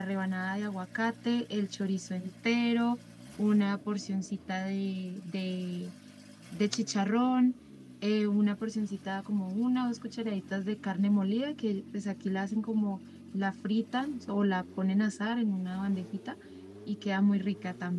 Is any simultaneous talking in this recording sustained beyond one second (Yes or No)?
No